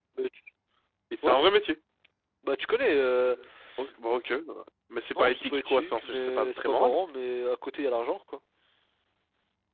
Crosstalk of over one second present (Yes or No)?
Yes